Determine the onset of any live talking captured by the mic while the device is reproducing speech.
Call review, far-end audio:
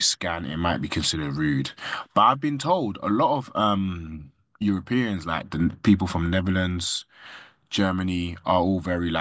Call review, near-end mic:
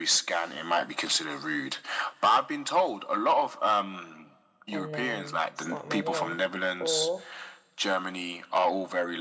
4.7 s

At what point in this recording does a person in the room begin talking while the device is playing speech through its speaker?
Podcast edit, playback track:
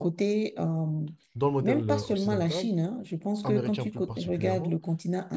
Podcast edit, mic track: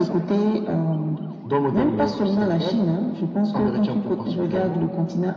none

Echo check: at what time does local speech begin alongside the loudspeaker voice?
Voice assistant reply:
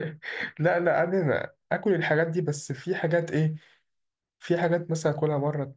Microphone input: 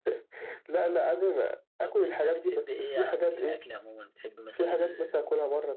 1.8 s

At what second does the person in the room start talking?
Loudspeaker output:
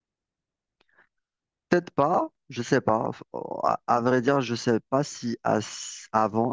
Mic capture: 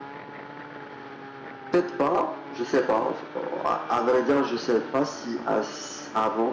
none

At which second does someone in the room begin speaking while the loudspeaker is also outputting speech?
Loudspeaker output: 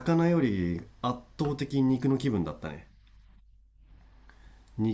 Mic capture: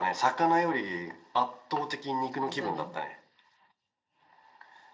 2.4 s

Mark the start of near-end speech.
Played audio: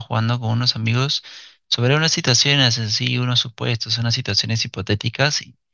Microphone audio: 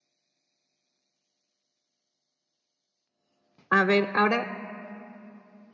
3.7 s

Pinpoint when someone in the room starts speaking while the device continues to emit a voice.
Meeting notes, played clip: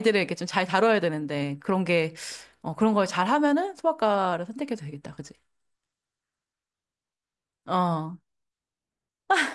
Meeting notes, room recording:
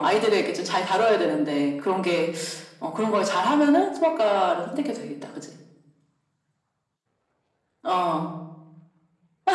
none

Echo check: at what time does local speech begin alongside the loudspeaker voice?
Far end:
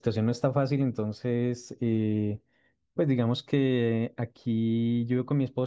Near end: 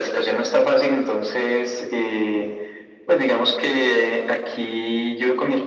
none

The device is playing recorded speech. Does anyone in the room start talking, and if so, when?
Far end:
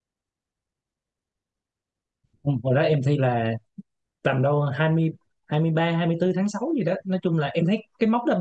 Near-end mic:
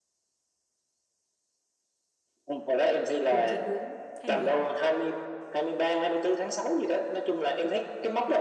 3.3 s

